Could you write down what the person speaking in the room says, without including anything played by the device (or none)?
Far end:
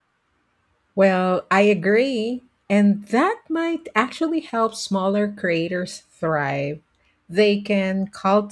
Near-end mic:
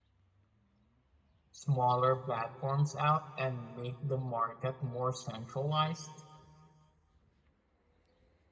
smaller platforms out and make the market more centralized?